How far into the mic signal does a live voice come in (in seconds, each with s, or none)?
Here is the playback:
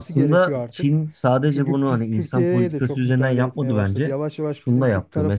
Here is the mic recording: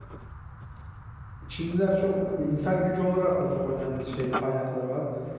1.5 s